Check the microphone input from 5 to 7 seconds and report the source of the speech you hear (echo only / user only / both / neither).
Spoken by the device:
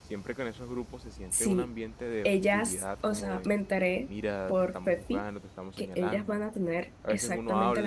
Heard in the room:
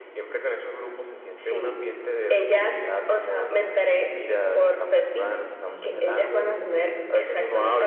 both